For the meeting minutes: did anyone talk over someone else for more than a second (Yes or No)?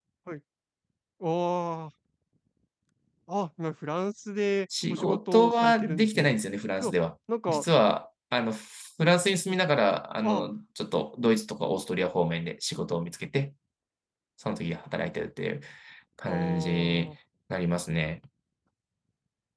Yes